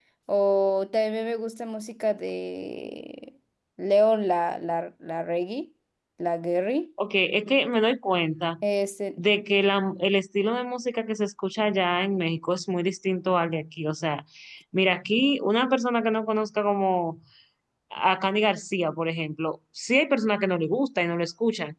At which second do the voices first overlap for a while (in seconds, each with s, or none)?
none